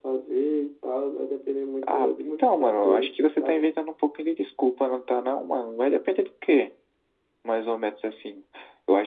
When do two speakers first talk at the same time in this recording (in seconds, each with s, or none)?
1.8 s